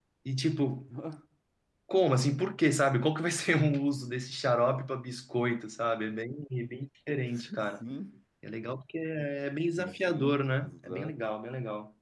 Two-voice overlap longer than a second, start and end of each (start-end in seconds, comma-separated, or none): 9.7-11.2